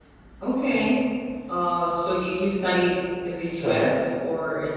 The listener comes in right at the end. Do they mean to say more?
No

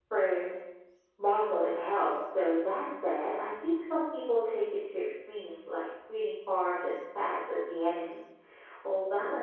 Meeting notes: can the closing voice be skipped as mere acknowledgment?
Yes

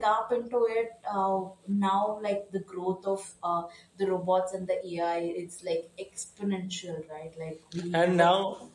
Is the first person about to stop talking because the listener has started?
Yes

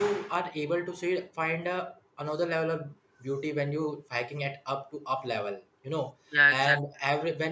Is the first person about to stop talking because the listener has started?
No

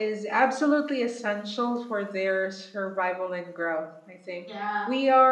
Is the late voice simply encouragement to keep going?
Yes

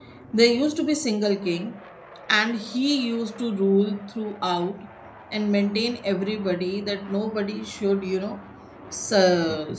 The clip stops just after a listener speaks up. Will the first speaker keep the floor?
Yes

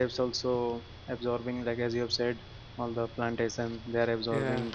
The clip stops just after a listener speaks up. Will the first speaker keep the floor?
Yes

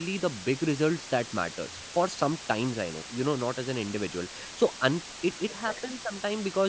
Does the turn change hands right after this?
No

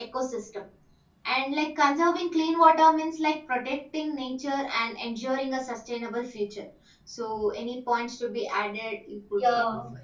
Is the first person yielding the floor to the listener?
Yes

